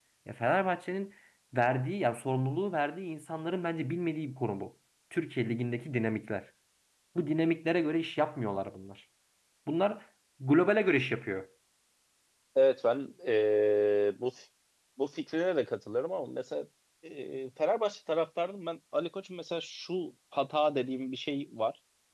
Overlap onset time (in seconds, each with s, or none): none